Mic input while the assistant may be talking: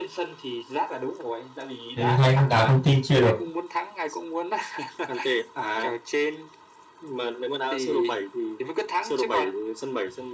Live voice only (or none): thế thì hay đá công ty chia được